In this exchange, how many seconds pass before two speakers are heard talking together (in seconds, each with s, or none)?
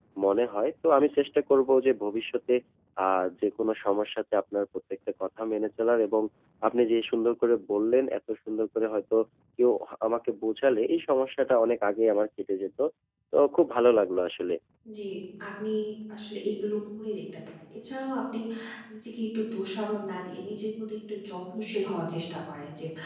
none